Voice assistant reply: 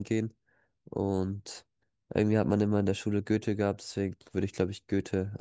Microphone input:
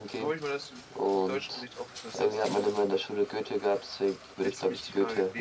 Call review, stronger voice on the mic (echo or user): echo